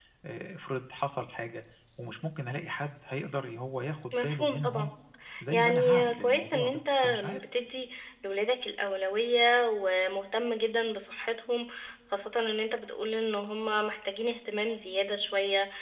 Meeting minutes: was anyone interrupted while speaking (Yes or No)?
Yes